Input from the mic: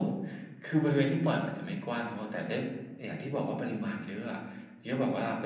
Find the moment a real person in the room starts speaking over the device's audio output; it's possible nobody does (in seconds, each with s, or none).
none